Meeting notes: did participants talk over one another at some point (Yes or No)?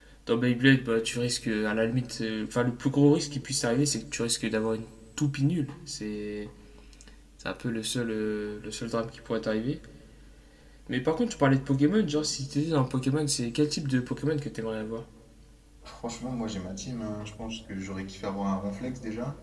No